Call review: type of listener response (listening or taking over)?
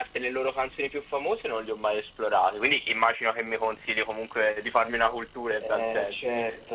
taking over